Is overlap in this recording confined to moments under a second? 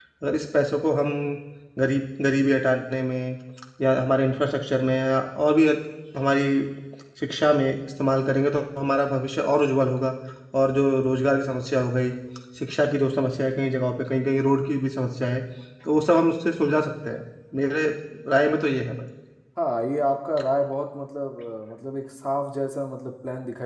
Yes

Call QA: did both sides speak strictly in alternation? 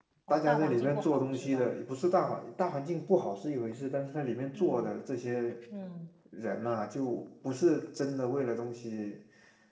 No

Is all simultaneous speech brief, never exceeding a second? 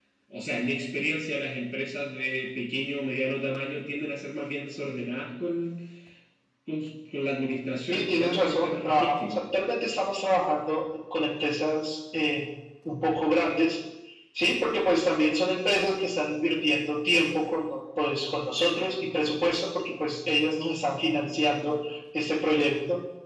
No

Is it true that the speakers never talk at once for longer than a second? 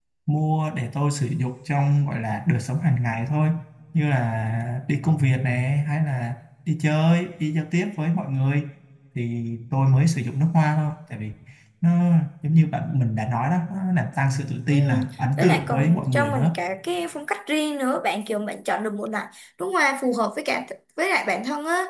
No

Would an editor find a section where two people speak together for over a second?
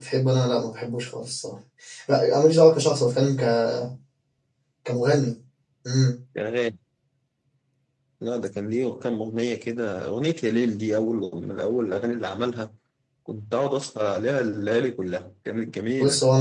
No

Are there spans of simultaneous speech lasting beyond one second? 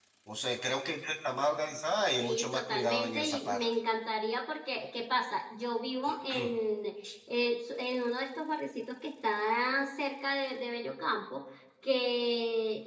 Yes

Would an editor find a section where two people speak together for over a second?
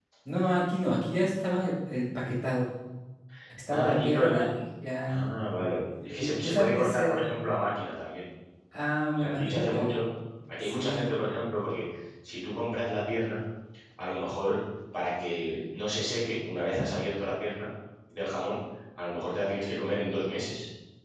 Yes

